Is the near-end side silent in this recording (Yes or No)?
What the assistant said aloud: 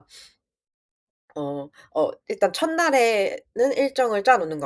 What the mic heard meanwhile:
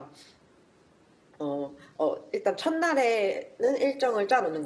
Yes